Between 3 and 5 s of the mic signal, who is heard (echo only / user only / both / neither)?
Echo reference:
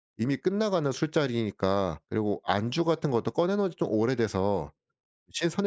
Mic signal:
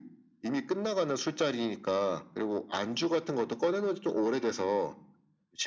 echo only